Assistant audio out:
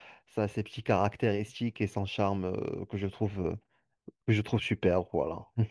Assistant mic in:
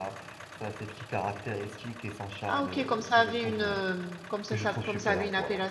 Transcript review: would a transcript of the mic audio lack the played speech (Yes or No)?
No